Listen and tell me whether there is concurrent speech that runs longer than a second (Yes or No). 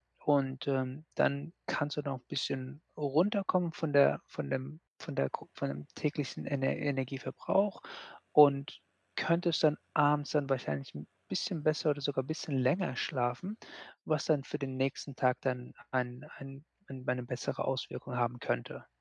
No